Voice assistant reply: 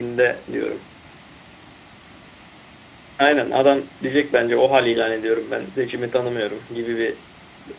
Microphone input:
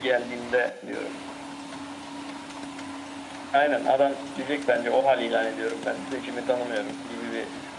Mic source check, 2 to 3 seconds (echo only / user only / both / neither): neither